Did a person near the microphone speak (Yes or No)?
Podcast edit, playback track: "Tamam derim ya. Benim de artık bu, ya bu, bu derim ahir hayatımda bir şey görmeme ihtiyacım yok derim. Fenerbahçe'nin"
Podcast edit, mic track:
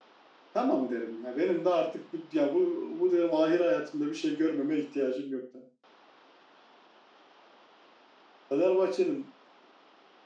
No